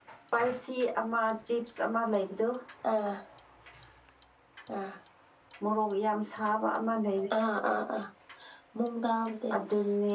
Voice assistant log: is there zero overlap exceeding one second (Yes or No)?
Yes